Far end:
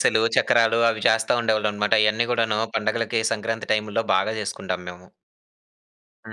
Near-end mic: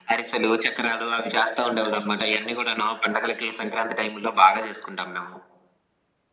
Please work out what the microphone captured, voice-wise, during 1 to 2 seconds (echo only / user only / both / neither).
echo only